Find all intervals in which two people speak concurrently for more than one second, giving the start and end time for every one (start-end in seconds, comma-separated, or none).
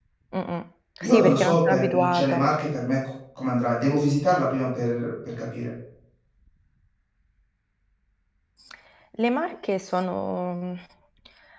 1.0-2.5